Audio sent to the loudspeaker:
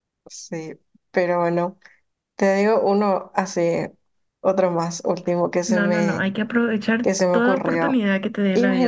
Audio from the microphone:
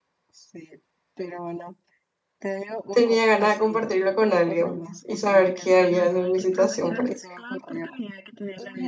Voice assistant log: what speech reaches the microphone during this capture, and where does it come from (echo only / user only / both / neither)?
both